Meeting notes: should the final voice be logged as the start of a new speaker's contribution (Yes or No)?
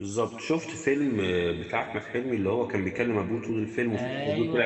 Yes